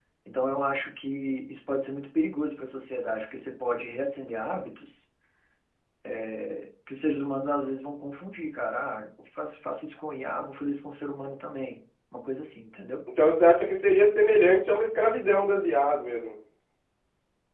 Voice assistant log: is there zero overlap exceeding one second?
Yes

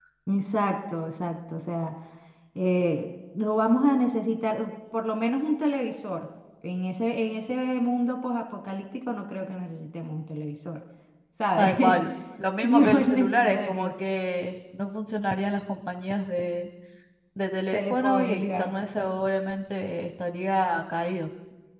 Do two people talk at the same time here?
Yes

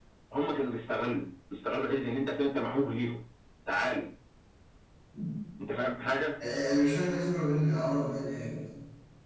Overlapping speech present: No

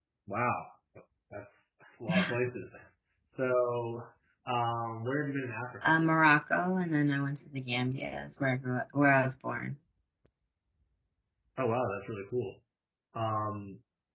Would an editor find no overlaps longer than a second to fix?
Yes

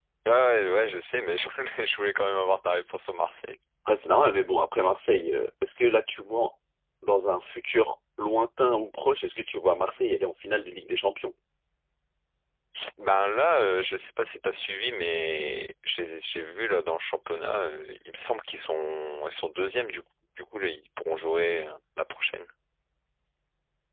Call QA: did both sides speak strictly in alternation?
Yes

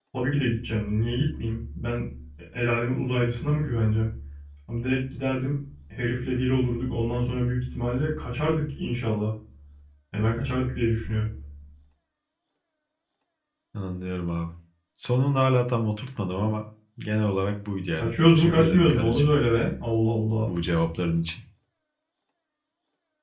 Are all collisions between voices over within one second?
No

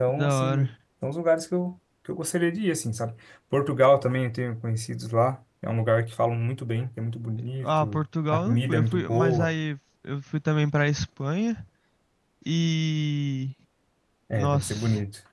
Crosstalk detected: Yes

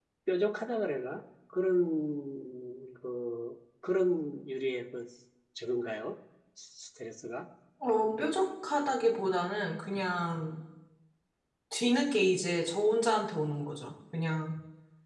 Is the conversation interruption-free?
Yes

